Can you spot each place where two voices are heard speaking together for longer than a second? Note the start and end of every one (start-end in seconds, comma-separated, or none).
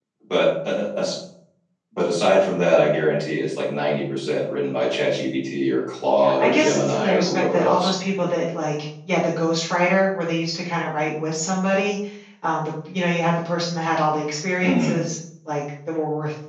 6.4-7.9